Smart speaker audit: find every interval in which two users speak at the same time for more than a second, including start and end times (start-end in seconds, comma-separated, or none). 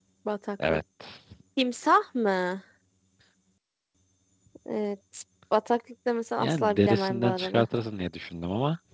6.4-7.6